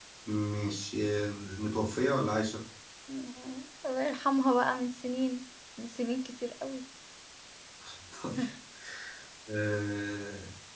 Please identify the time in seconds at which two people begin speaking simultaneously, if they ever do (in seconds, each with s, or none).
none